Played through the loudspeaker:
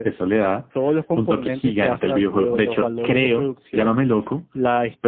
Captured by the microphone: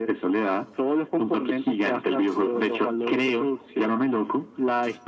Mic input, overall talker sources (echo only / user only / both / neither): echo only